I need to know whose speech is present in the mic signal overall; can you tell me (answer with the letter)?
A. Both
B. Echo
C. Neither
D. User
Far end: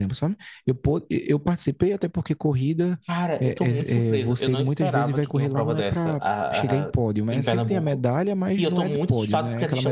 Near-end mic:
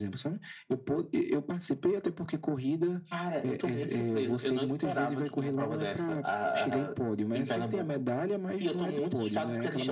B